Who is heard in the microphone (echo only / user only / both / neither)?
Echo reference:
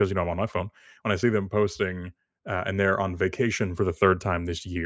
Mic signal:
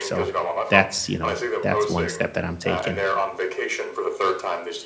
both